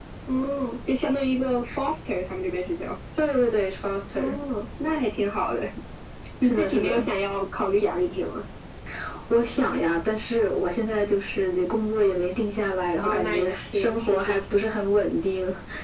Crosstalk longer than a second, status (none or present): present